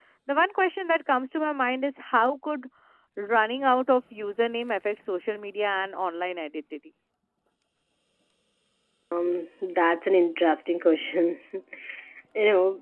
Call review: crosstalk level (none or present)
none